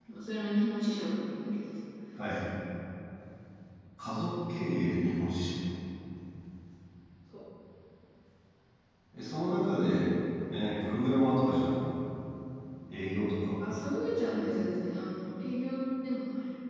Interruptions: none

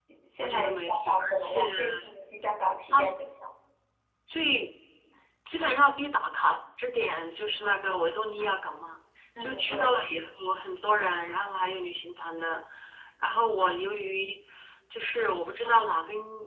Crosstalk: present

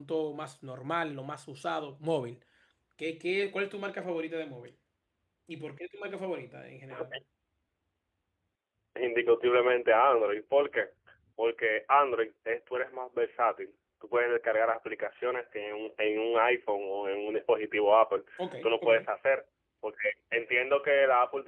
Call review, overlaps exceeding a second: none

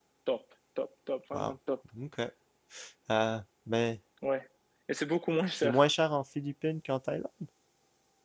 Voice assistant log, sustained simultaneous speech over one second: none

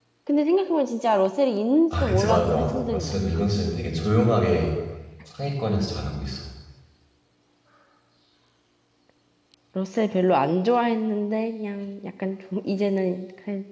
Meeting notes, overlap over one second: present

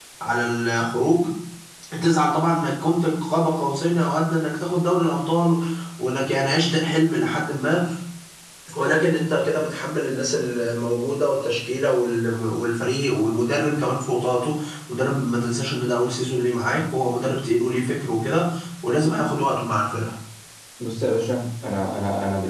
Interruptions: none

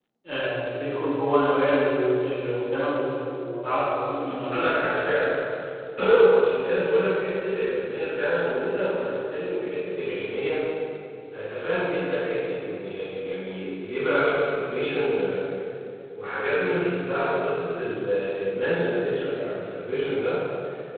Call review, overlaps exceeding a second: none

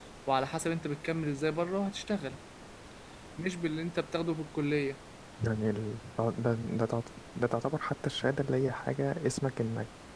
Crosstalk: none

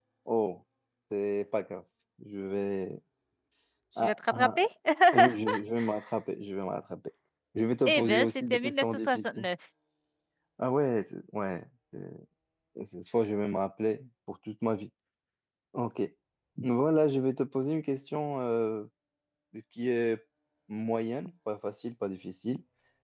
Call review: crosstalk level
present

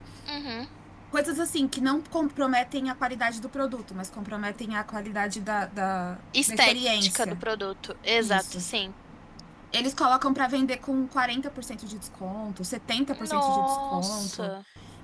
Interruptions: present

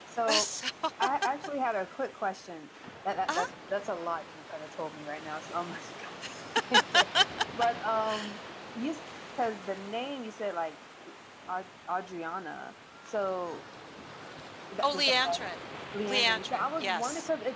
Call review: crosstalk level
present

